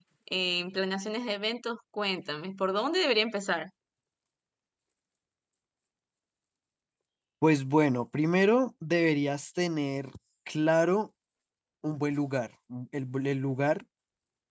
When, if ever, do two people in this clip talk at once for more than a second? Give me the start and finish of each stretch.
none

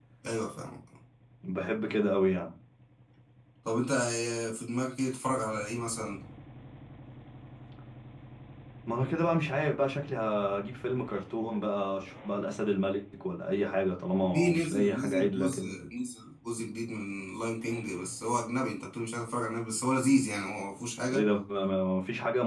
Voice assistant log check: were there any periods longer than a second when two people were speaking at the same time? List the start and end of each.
14.3-15.7

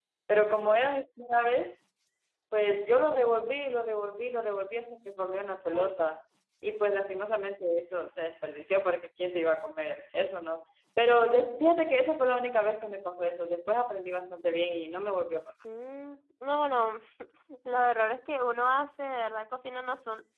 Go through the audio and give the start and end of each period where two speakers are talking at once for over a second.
none

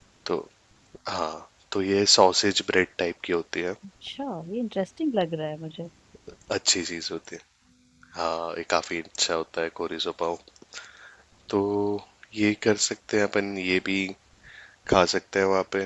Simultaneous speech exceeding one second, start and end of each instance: none

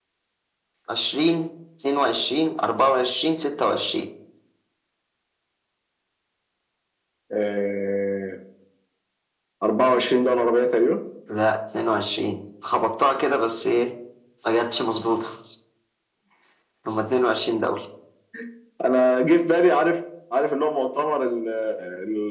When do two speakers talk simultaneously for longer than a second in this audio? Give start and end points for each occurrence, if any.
none

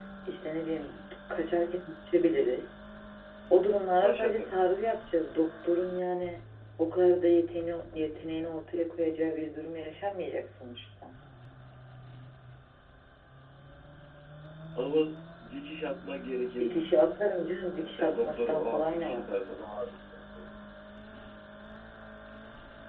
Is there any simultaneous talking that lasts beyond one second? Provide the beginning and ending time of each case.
17.8-19.3

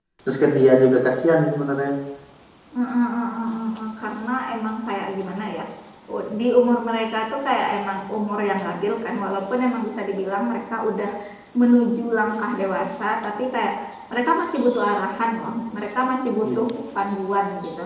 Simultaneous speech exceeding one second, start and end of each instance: none

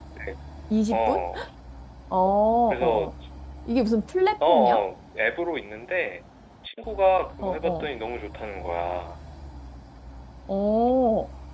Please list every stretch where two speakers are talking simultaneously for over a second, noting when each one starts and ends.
none

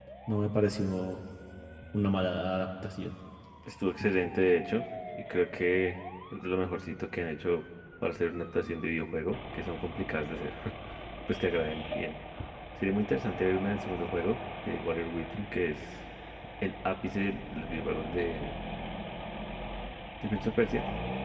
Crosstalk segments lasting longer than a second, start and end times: none

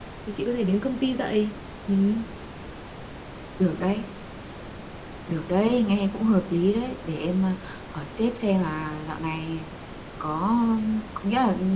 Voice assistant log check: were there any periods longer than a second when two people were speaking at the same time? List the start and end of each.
none

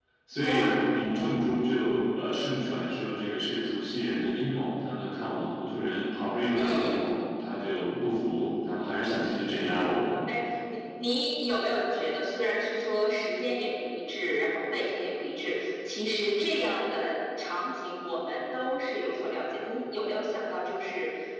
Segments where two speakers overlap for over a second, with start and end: none

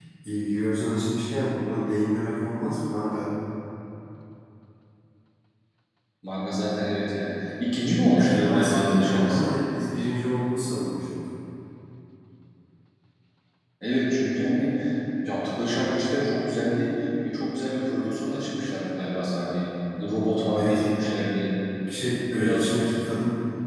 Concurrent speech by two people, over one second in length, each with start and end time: 8.2-9.5

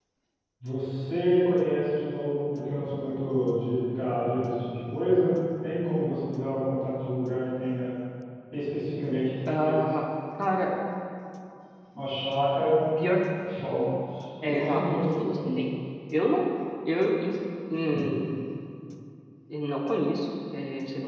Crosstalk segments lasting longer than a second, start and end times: 14.5-15.7

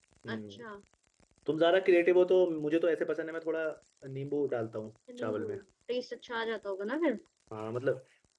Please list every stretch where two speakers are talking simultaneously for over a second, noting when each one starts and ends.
none

